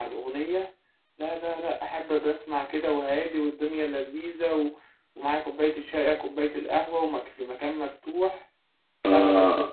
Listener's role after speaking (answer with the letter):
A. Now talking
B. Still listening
A